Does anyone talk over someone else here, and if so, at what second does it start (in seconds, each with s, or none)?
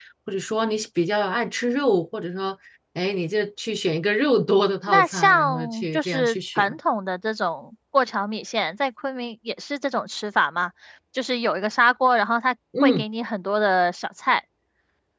4.9 s